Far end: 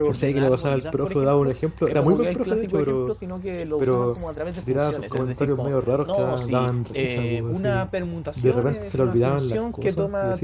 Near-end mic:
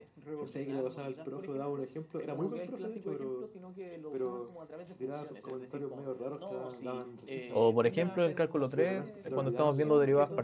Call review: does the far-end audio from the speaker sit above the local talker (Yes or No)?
No